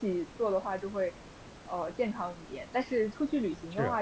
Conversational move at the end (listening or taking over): listening